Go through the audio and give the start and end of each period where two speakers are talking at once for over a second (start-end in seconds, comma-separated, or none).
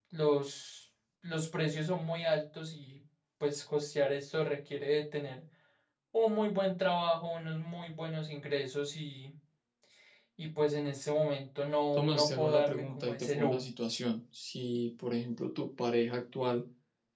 12.0-13.6